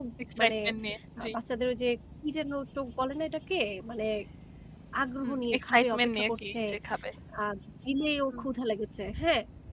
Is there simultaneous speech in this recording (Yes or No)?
Yes